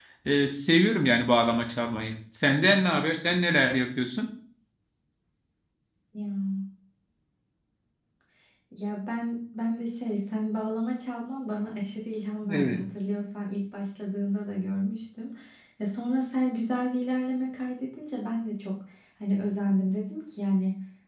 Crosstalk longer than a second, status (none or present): none